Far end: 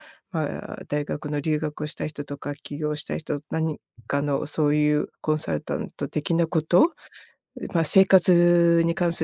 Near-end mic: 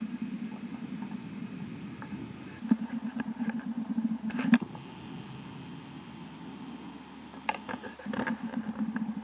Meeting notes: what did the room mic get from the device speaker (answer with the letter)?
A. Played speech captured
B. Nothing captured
B